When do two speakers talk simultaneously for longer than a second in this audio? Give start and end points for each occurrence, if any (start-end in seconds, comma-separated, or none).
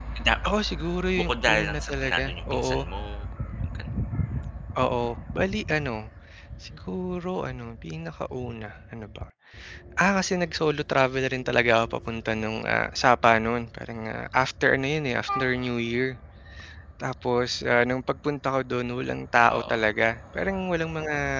1.2-2.7